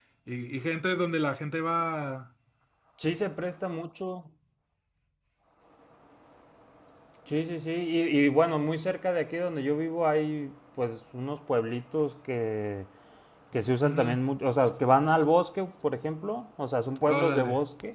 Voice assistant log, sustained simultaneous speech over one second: none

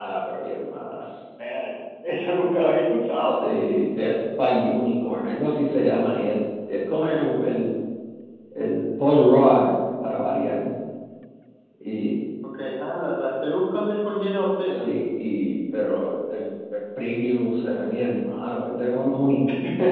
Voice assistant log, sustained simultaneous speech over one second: none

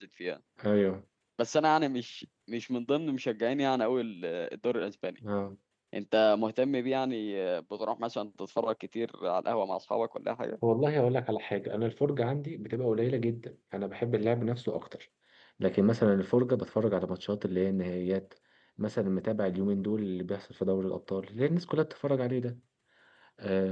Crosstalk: none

